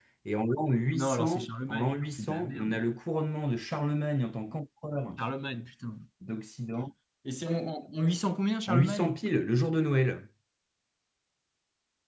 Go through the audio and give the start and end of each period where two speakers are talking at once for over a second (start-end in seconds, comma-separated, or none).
0.9-2.8